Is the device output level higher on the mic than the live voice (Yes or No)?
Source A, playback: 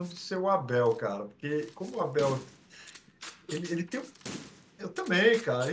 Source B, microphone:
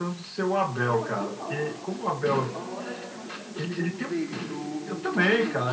Yes